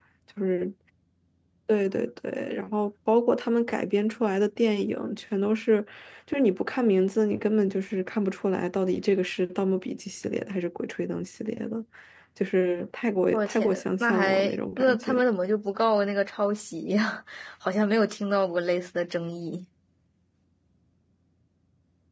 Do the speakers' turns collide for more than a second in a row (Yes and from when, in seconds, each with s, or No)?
Yes, from 13.3 s